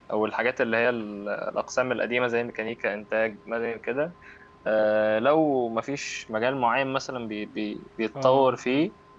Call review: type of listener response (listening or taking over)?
listening